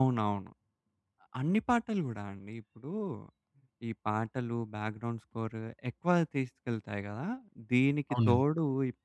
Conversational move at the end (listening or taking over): listening